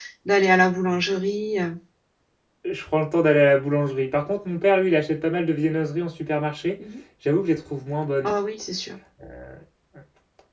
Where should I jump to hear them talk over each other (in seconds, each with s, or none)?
none